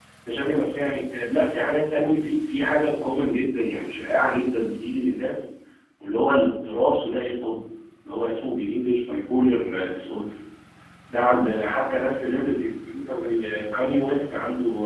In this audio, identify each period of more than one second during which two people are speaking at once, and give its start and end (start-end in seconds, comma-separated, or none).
none